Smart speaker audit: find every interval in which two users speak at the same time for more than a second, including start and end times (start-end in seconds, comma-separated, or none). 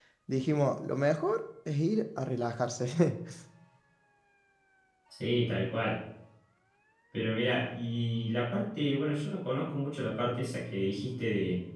none